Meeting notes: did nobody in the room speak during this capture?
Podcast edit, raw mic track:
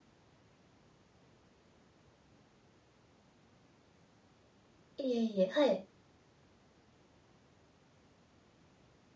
No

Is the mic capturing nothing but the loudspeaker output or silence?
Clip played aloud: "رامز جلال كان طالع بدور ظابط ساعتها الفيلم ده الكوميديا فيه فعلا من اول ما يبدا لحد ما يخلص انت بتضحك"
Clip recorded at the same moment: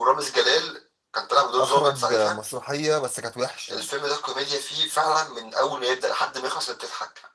No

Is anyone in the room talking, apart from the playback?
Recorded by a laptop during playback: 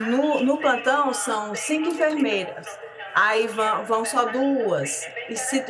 Yes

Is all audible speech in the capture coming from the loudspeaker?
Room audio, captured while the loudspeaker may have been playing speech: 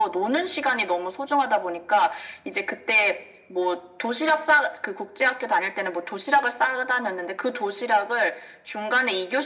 Yes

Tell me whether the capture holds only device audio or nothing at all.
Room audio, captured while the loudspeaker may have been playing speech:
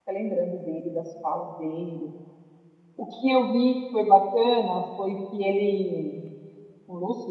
No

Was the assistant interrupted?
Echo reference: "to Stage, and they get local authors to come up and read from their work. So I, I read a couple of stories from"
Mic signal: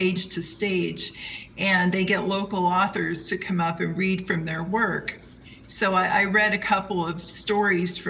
No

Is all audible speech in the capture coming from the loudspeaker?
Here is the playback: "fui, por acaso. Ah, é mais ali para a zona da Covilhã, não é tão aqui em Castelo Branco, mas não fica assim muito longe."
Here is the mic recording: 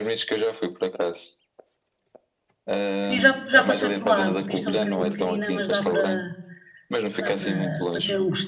No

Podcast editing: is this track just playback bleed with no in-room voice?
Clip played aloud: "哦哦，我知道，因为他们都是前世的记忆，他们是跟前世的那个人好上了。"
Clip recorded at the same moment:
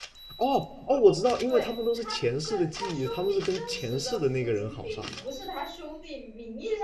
No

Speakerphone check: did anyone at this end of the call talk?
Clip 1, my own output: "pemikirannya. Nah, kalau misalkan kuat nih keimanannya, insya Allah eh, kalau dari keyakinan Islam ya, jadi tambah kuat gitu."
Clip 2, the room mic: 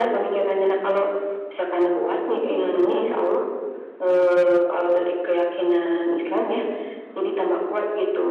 No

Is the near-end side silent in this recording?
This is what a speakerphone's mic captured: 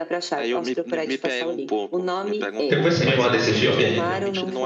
No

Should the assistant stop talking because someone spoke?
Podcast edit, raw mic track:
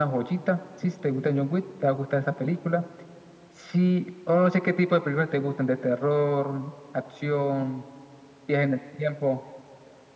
No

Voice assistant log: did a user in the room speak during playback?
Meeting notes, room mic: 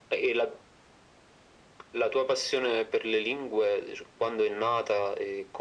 No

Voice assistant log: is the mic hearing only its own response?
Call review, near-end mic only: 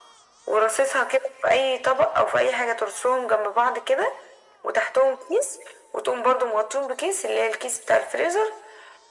Yes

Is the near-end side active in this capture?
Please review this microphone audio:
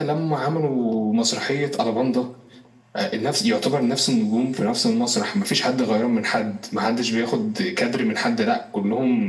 No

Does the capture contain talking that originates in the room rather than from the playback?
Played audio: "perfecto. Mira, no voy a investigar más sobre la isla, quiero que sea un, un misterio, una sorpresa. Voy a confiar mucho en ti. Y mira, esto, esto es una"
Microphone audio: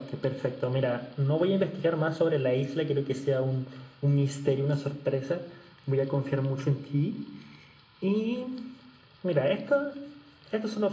No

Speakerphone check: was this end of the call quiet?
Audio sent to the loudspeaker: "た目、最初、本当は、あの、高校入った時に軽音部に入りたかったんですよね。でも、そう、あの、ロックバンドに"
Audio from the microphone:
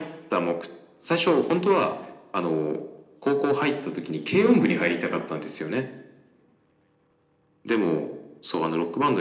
Yes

